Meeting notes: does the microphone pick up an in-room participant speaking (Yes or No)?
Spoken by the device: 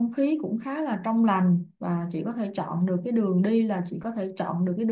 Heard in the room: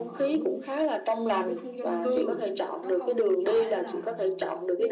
Yes